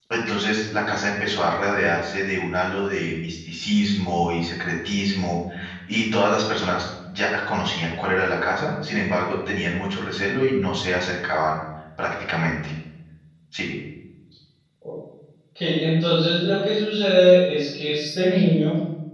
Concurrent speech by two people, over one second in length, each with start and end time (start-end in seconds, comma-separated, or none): none